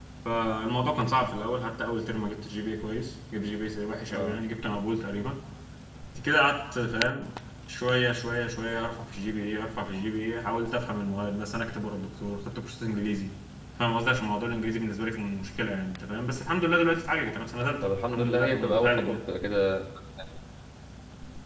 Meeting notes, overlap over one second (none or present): present